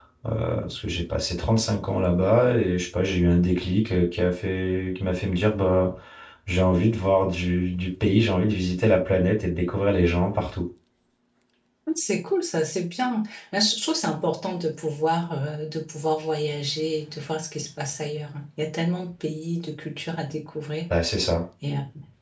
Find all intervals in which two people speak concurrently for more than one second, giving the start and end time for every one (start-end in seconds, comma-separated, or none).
none